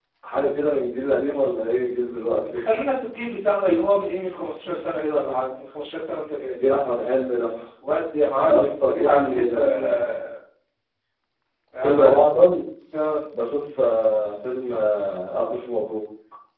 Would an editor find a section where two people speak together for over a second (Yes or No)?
Yes